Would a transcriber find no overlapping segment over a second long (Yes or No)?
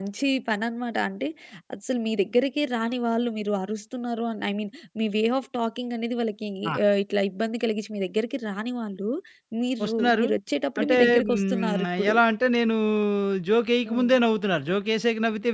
No